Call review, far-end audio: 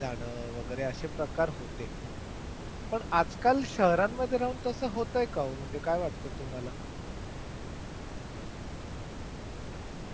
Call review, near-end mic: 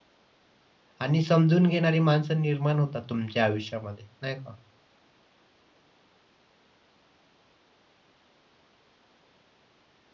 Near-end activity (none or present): present